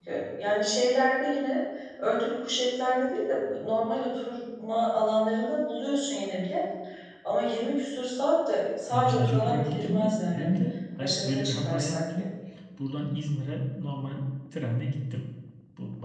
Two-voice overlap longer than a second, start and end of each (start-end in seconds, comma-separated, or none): 8.9-10.6, 11.0-12.3